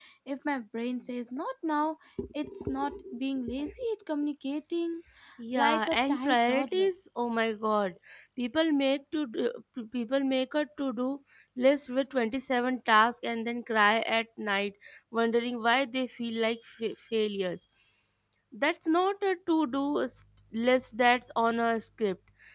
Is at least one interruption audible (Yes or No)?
Yes